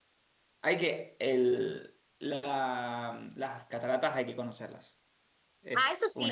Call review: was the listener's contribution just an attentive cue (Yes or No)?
No